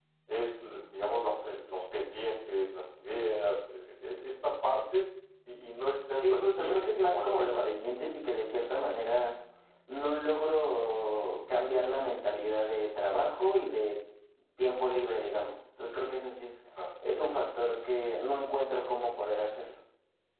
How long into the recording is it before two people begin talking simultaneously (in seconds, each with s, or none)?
6.1 s